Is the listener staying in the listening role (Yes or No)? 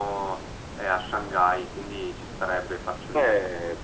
No